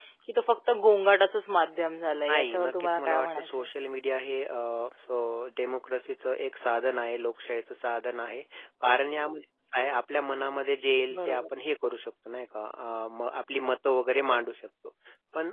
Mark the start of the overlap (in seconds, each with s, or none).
2.3 s